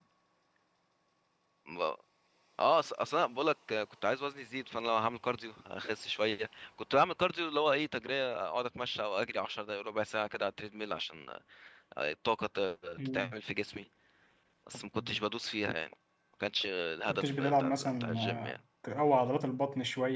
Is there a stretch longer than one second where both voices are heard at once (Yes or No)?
Yes